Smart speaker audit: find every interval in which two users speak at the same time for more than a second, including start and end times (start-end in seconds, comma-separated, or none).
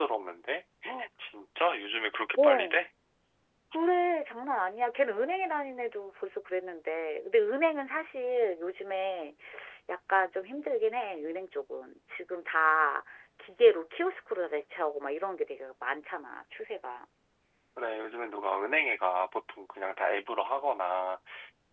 none